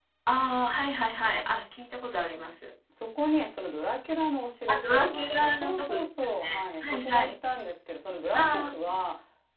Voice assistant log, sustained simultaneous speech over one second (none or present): present